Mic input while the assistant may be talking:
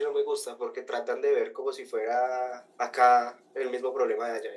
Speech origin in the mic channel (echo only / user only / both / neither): echo only